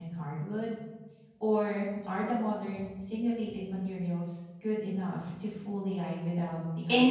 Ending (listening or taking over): taking over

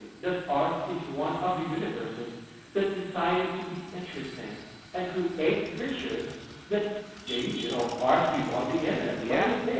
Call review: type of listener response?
taking over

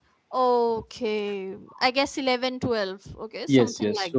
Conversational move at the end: taking over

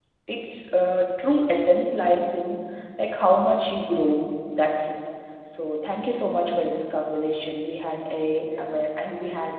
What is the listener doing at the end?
listening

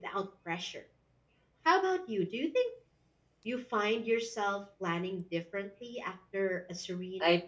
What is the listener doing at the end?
taking over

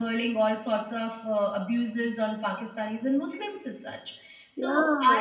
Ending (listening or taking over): listening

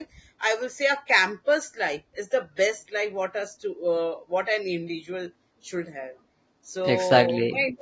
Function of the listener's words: listening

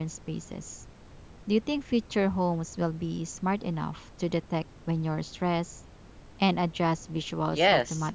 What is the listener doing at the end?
taking over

